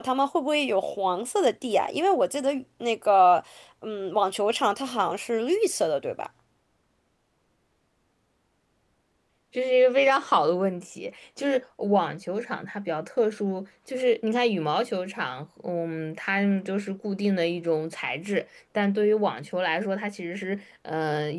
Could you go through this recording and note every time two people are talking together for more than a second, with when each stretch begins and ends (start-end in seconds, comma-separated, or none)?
none